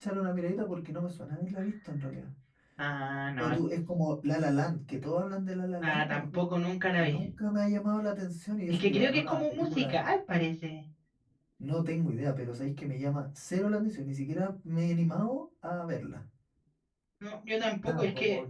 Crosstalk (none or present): present